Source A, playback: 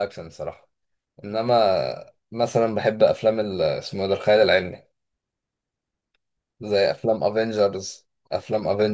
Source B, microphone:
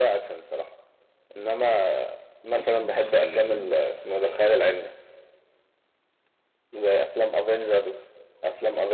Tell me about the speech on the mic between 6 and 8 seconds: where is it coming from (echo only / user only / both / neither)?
echo only